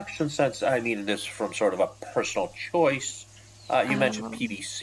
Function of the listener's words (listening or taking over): listening